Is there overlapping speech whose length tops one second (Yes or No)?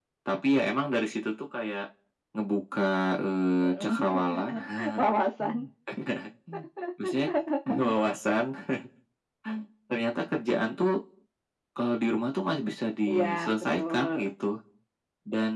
Yes